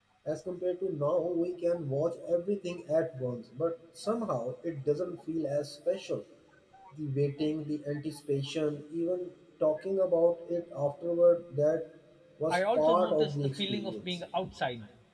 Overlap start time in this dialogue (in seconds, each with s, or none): 12.5 s